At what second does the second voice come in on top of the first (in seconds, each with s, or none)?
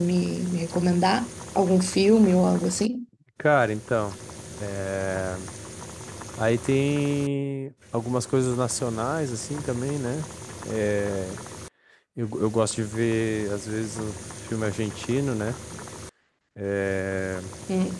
none